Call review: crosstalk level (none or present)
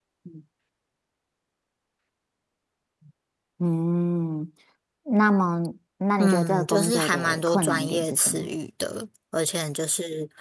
present